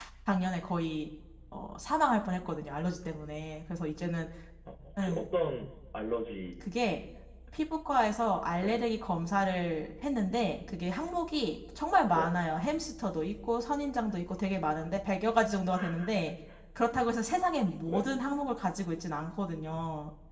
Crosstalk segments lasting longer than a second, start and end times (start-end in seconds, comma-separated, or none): none